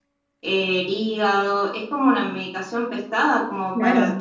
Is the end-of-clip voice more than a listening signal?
Yes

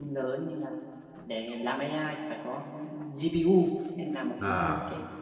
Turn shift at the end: No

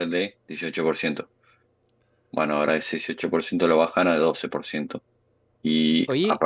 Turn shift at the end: No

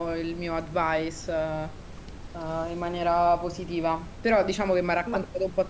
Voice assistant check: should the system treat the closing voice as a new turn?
No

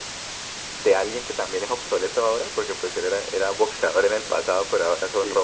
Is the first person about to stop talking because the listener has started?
No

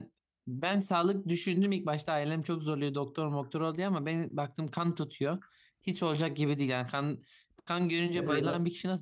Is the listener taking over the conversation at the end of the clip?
No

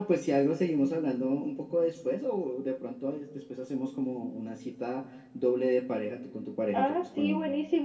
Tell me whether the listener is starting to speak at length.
Yes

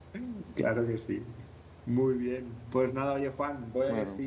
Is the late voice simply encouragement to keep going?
Yes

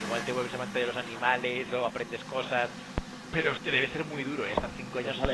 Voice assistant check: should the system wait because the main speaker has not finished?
No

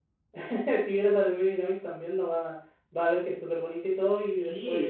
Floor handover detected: Yes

